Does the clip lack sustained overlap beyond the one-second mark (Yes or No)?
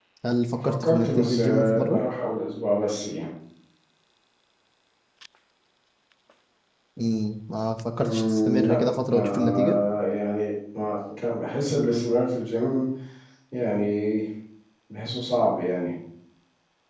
No